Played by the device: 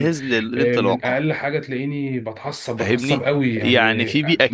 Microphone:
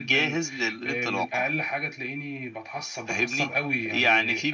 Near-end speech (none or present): none